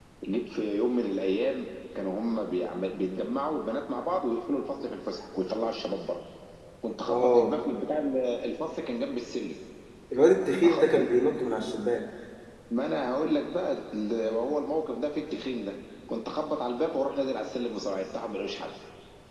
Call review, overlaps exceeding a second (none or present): none